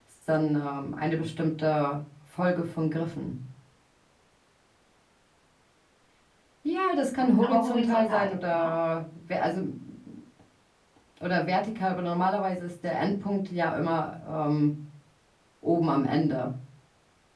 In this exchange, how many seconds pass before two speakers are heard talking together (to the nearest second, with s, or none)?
7 s